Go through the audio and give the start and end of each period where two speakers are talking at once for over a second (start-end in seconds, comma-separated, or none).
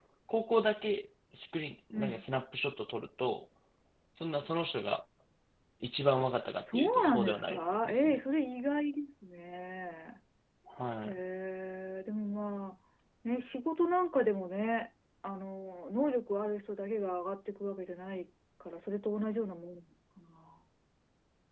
6.7-8.2